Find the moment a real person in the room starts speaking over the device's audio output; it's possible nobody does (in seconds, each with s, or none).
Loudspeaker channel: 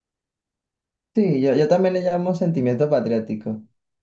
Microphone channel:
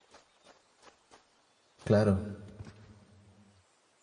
1.8 s